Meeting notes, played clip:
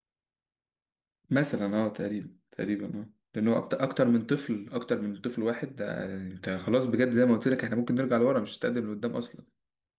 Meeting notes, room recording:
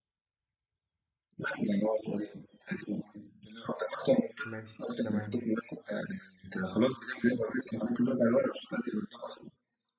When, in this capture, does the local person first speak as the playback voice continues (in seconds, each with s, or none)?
4.4 s